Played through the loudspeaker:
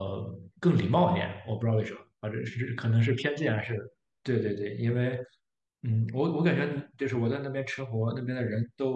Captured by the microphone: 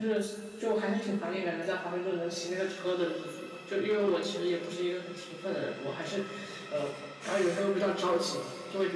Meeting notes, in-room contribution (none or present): present